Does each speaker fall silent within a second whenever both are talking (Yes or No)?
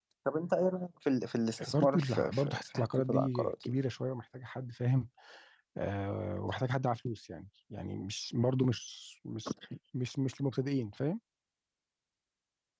No